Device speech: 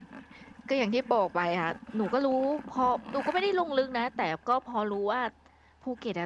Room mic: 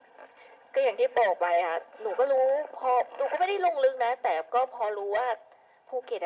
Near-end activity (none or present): none